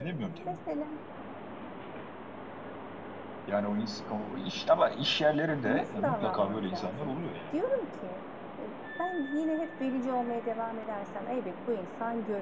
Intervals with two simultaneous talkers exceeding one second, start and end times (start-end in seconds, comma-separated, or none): 5.6-7.1